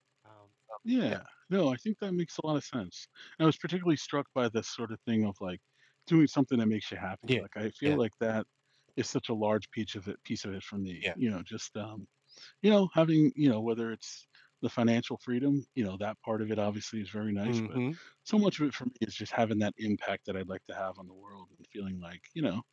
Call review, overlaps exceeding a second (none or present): none